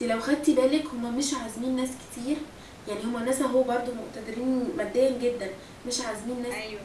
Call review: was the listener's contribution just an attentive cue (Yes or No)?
Yes